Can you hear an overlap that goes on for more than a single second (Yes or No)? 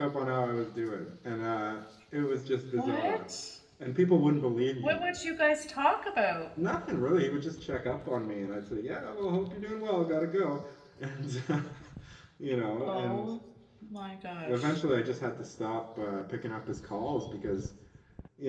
No